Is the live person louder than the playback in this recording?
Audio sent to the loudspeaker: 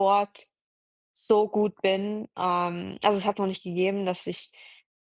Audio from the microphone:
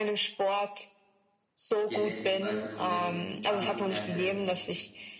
No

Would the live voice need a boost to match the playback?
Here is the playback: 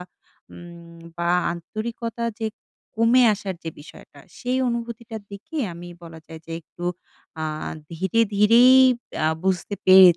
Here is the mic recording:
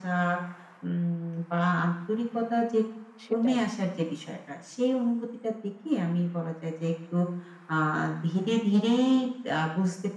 Yes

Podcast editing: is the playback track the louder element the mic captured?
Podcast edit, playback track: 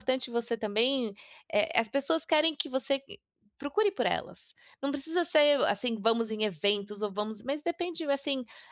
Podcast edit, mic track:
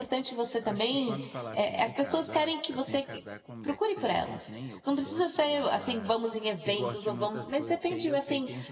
Yes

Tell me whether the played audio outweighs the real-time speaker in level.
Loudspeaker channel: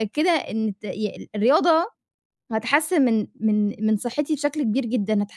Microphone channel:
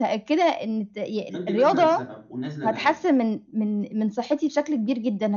Yes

